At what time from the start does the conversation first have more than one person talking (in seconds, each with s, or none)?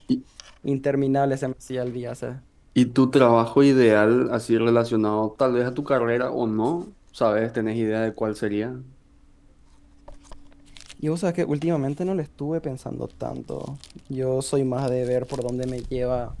none